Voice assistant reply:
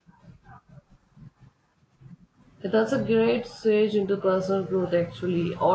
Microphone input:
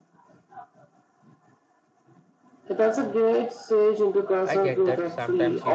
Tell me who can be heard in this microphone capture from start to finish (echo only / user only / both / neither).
both